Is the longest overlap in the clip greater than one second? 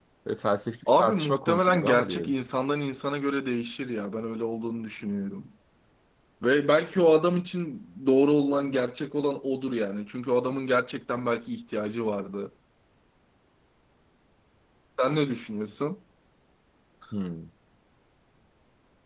Yes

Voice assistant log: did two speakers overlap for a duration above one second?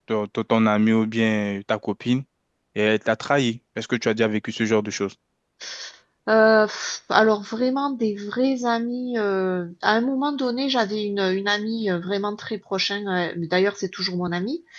No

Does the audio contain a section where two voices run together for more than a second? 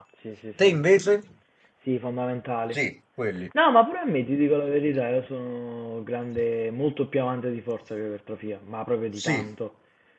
No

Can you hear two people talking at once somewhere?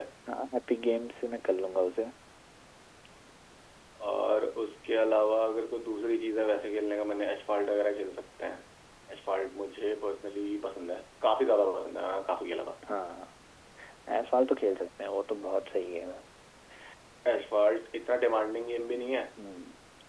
No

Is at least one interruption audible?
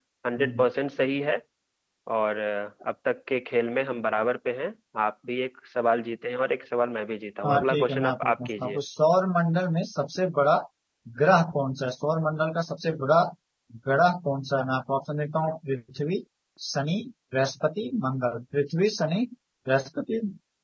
Yes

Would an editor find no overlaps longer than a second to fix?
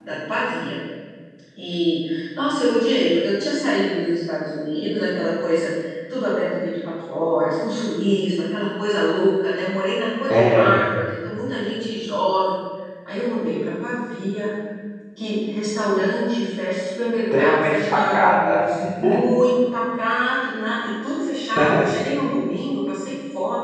No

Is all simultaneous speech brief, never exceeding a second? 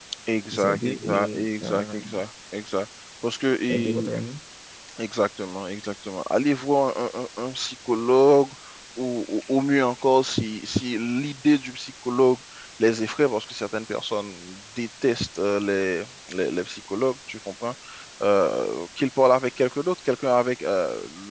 No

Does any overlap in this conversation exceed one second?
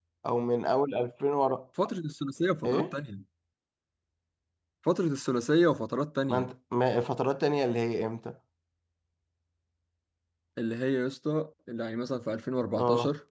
No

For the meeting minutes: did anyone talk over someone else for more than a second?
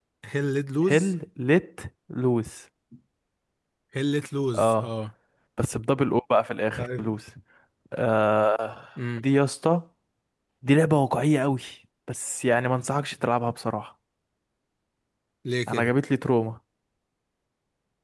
No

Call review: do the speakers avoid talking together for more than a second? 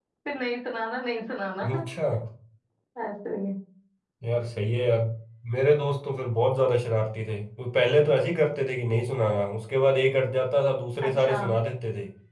Yes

